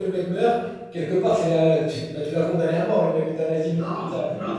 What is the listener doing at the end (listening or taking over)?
taking over